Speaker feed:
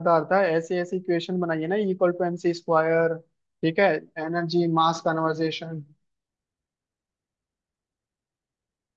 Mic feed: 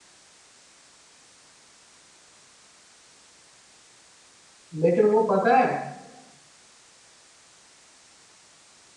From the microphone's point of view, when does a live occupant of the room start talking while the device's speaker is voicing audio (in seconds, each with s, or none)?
4.8 s